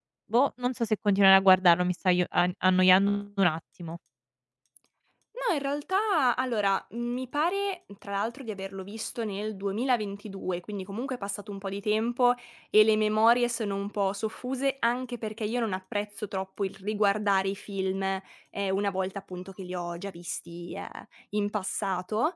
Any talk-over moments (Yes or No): No